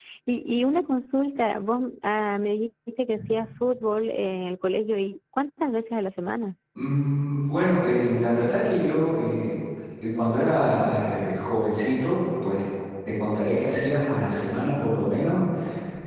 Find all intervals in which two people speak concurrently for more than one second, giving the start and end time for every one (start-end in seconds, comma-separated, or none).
none